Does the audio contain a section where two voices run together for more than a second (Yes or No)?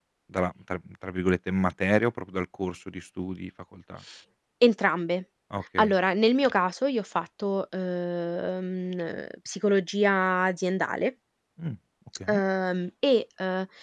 No